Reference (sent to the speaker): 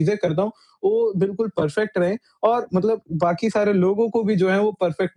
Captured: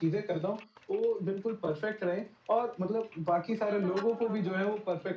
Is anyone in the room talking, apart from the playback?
Yes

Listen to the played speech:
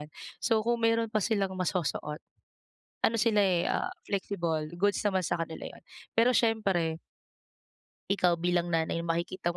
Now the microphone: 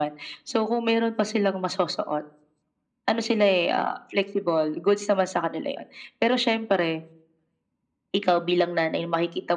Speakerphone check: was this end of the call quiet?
Yes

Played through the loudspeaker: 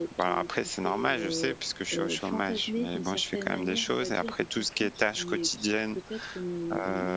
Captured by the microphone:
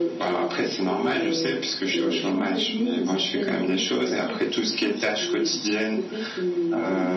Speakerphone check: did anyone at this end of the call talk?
No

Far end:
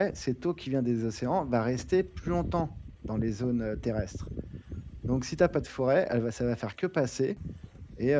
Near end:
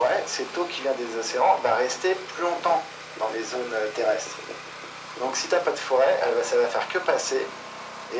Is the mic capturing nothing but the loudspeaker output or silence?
Yes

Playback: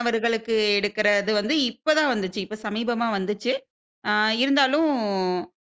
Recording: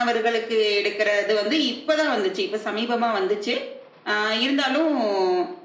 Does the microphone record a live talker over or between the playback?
No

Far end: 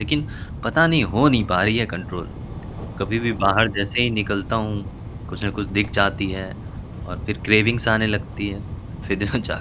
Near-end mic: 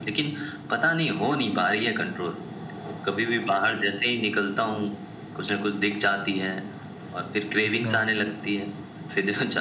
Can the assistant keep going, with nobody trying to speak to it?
No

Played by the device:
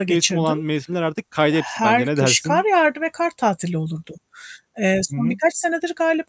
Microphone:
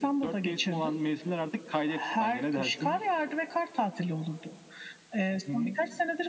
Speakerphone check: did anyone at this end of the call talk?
No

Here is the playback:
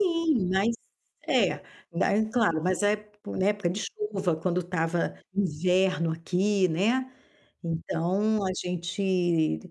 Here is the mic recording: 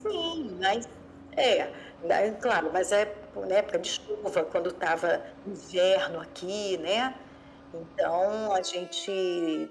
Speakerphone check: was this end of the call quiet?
Yes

